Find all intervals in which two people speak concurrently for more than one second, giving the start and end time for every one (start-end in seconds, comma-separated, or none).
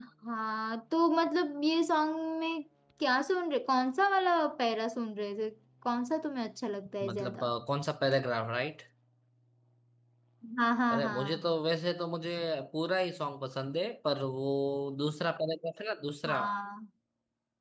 none